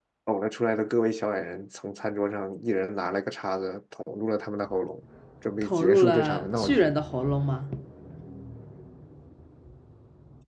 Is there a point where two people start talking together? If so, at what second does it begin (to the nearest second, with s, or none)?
6 s